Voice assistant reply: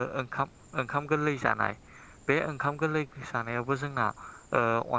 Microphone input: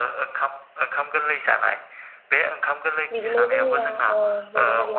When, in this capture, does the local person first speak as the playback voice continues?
3.1 s

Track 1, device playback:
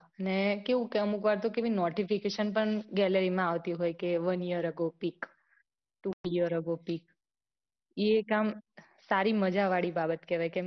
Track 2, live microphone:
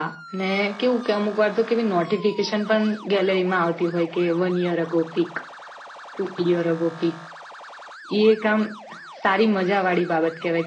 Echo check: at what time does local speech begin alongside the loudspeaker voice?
none

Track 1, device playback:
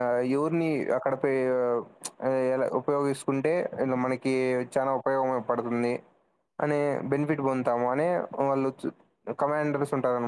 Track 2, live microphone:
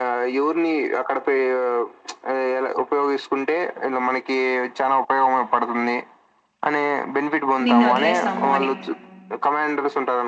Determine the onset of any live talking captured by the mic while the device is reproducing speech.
7.7 s

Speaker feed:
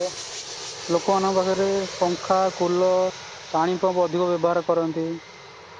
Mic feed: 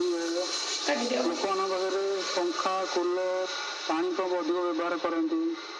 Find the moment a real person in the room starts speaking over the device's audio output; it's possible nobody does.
0.9 s

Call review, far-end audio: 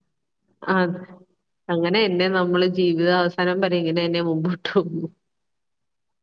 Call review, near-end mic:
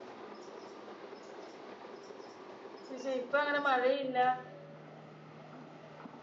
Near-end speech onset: 2.9 s

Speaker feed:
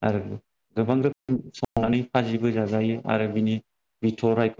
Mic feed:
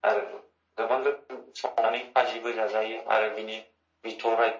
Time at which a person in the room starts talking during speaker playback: none

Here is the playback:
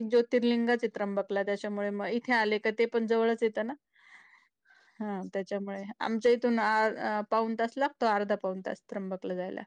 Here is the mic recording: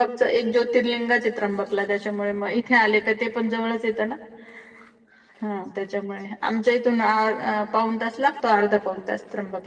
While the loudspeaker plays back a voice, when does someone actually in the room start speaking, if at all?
none

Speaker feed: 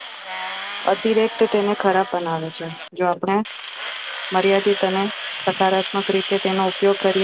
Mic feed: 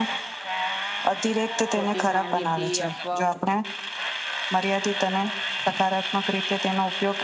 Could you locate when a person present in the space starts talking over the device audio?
1.7 s

